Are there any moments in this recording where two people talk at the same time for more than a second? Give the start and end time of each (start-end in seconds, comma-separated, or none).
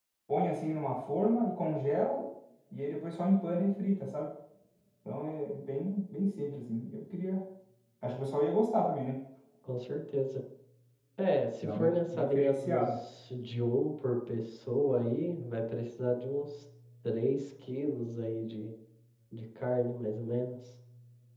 11.6-13.0